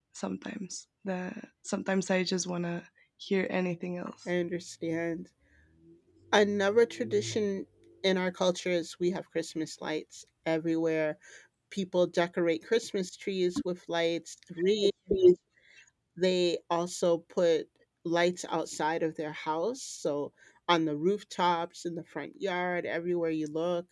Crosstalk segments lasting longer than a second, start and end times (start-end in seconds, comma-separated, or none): none